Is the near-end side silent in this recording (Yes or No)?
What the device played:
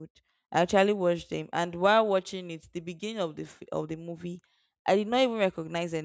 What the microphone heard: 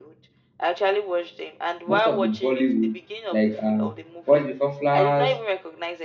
No